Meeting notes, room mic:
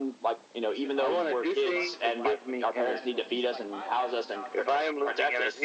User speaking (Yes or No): Yes